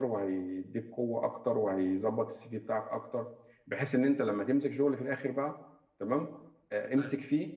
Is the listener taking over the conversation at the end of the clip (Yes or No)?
No